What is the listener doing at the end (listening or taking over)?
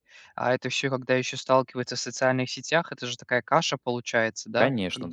taking over